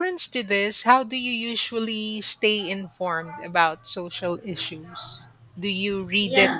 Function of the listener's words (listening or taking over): listening